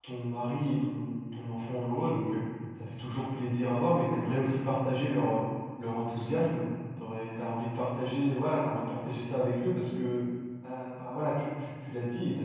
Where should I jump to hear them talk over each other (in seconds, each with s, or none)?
none